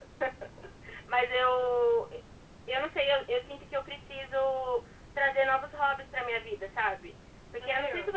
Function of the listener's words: listening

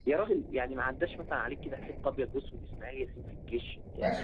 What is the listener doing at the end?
taking over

